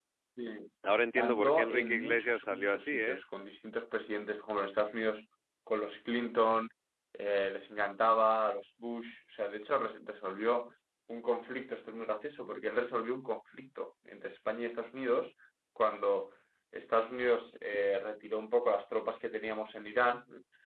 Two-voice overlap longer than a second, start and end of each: 1.2-3.2

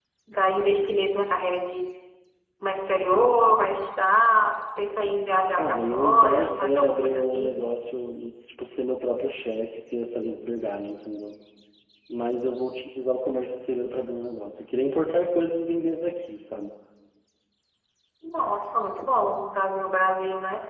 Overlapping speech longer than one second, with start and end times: 5.6-7.5

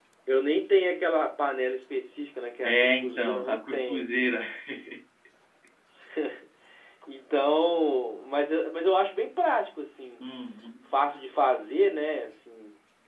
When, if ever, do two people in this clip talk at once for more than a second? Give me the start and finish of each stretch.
2.6-4.3

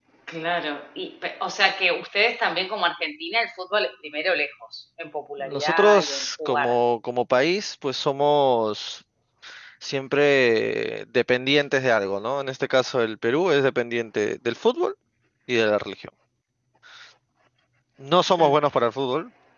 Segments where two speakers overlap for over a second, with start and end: 5.4-6.8

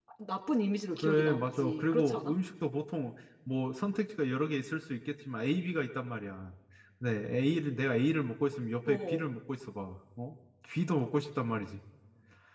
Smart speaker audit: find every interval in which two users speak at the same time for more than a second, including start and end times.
1.0-2.3

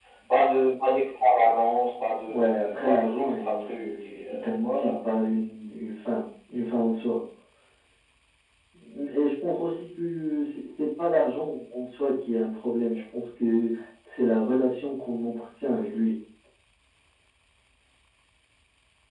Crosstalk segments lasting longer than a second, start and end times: 2.3-4.9

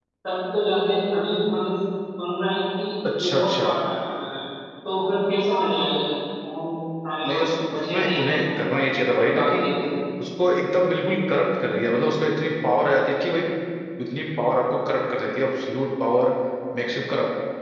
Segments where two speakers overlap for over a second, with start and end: 7.3-8.5

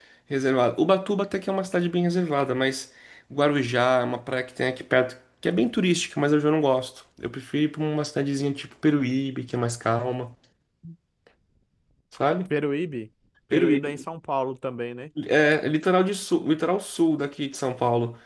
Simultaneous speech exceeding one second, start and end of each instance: none

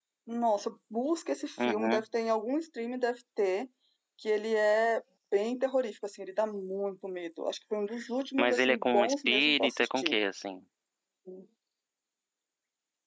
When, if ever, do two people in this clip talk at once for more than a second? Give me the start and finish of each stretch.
8.4-10.2

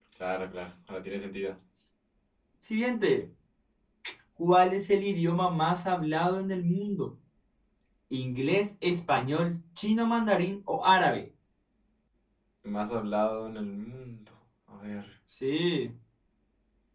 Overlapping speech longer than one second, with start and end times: none

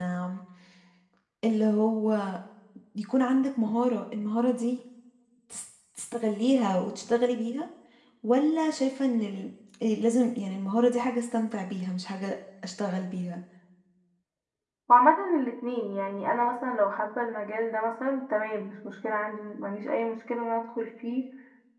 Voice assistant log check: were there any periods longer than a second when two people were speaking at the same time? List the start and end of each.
none

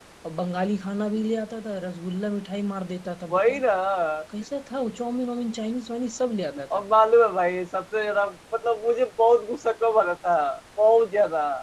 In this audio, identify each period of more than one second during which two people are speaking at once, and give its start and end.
none

